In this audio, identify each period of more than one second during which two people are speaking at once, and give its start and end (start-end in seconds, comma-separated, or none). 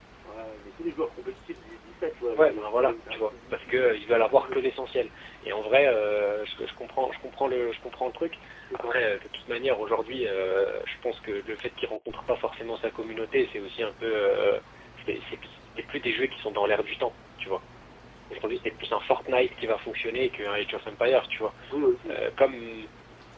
2.4-4.6